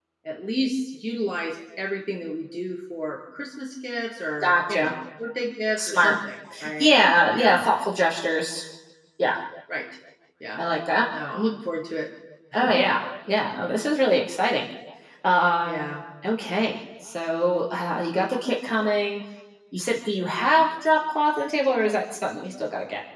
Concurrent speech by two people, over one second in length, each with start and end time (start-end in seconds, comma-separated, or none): none